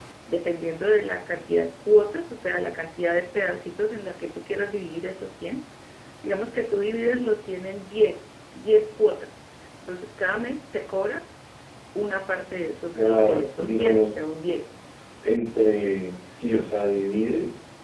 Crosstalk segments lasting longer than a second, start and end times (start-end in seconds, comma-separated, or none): 12.9-14.3